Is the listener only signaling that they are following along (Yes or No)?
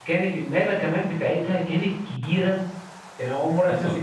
Yes